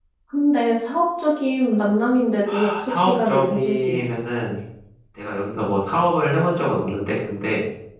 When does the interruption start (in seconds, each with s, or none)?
2.5 s